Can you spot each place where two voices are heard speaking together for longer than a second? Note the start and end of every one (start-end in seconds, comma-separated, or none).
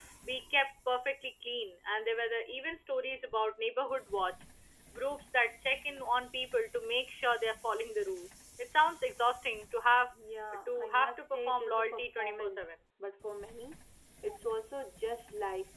10.7-12.7